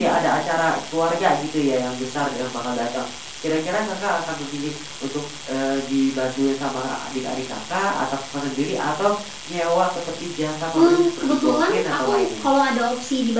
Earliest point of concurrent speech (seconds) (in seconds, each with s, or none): 10.7 s